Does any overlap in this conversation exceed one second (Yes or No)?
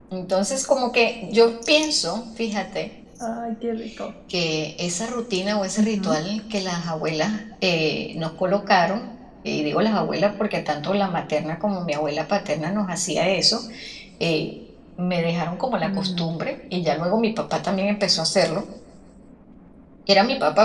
No